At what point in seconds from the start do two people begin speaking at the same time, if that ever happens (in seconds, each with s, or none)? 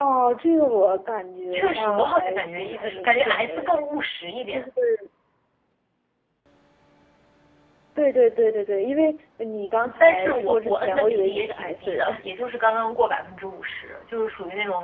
1.5 s